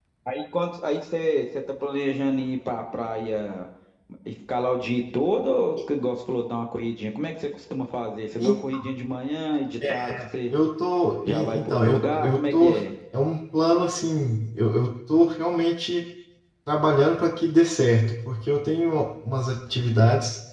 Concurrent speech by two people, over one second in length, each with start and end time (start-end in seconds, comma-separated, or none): 11.3-12.7